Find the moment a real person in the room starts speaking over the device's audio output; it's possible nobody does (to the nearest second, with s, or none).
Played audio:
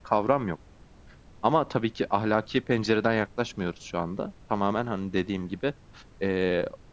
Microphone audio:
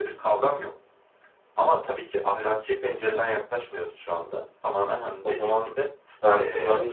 5 s